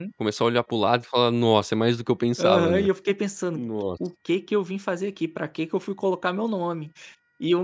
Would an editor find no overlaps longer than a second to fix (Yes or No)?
Yes